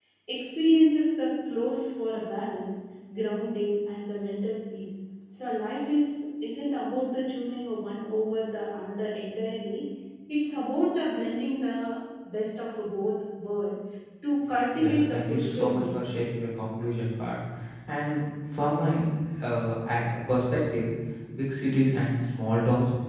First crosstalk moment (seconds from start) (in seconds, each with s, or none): 14.8 s